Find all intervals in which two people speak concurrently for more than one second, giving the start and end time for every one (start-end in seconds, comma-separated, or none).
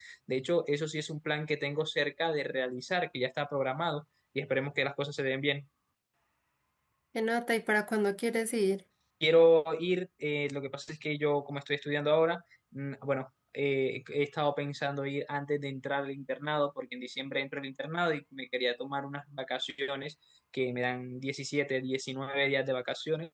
none